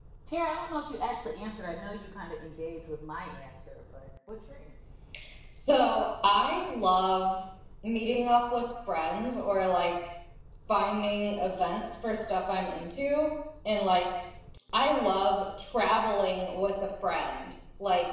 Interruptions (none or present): none